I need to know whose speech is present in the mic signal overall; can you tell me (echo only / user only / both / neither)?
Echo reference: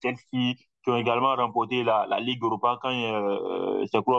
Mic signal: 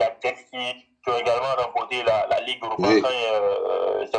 both